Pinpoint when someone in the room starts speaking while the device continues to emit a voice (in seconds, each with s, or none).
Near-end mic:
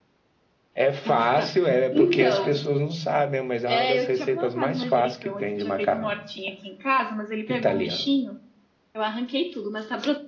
none